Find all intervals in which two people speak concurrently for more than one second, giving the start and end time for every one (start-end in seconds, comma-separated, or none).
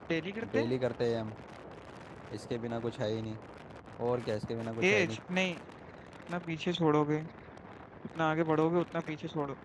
none